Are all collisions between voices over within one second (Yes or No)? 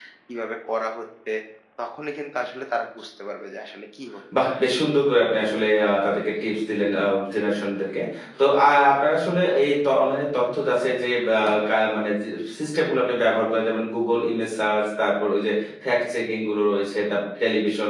Yes